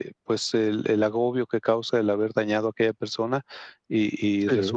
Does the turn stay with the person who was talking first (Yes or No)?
Yes